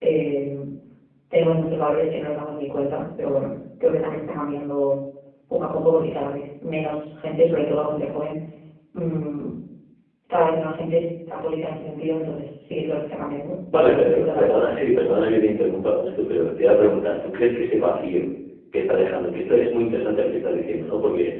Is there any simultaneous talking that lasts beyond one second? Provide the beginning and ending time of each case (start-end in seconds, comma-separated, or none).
13.7-15.2